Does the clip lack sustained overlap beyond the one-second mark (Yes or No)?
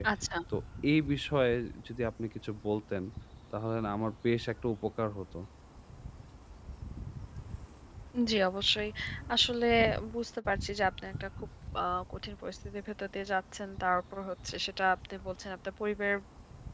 Yes